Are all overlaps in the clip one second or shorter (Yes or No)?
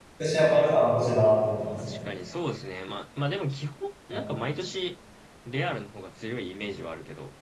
Yes